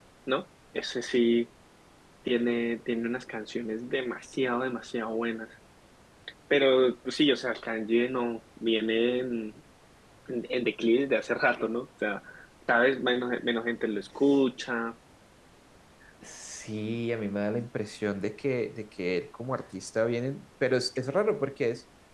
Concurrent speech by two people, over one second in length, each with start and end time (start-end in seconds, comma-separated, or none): none